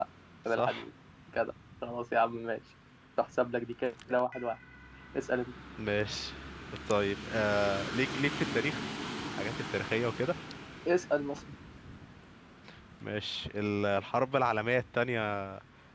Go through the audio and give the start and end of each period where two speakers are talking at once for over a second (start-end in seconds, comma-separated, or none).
none